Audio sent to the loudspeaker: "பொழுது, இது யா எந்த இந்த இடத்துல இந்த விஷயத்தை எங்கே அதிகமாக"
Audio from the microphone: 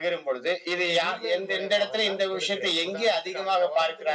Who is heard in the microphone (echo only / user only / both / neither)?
both